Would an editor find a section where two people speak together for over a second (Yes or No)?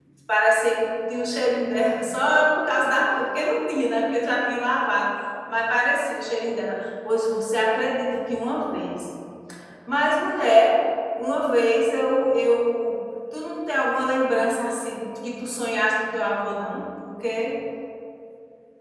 No